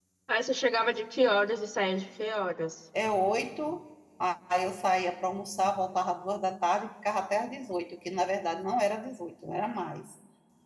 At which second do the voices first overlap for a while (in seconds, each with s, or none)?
none